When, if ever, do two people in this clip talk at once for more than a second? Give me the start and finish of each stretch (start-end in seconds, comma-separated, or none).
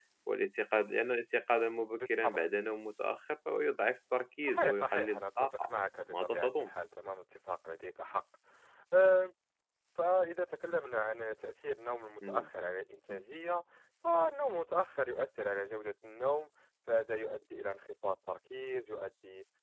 4.4-5.7